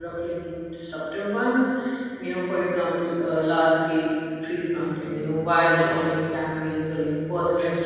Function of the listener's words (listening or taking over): listening